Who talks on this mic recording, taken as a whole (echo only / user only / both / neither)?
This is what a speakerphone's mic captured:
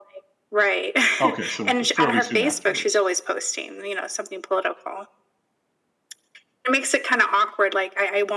both